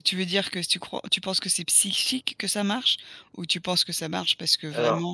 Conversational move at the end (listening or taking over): listening